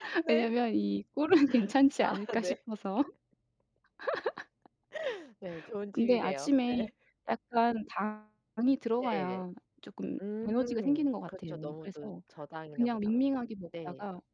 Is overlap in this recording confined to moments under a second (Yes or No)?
No